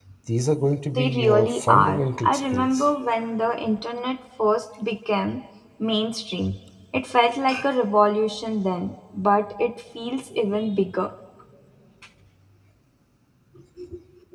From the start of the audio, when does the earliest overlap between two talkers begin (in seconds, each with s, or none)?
1.0 s